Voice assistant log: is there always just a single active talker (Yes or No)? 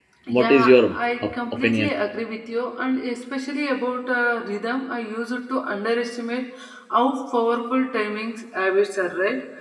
No